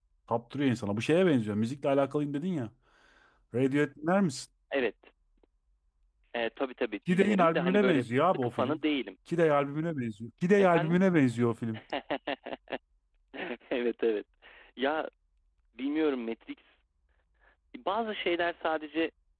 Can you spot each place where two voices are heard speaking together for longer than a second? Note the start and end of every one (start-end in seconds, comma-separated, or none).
7.1-8.8